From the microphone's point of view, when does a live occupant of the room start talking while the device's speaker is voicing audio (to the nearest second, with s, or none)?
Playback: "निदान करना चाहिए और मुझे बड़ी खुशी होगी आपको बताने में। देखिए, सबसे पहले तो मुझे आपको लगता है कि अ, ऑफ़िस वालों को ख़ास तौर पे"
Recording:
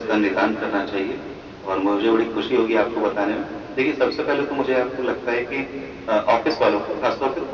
none